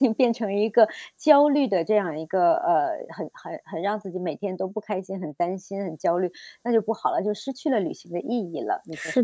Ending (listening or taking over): taking over